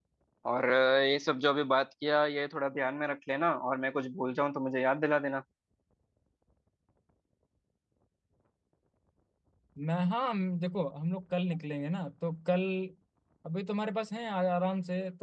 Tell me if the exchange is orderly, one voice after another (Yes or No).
Yes